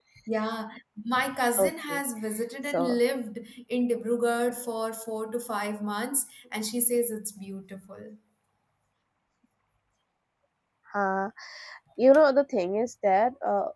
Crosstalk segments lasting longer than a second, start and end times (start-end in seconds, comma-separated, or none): none